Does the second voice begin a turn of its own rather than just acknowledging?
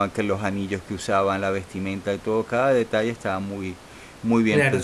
Yes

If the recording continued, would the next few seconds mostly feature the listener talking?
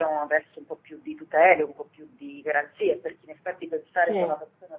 No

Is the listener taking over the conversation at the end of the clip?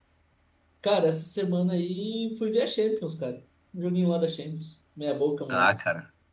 Yes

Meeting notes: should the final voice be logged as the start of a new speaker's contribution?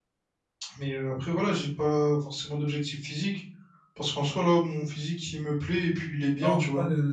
Yes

